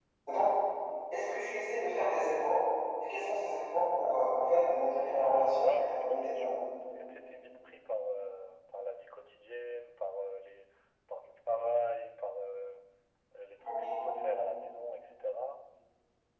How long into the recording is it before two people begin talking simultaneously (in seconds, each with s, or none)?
5.1 s